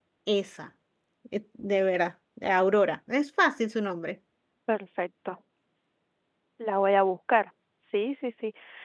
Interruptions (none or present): none